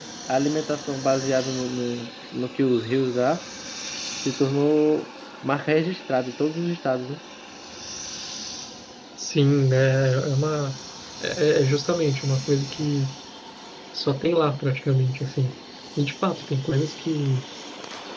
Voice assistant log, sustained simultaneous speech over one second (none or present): none